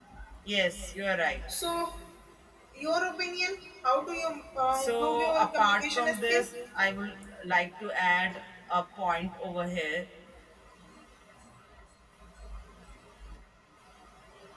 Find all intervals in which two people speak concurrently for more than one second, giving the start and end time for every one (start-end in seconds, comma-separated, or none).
4.7-6.4